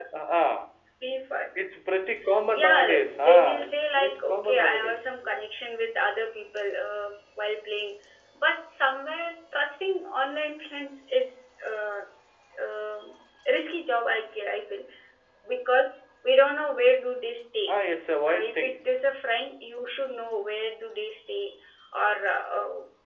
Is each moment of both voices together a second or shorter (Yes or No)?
No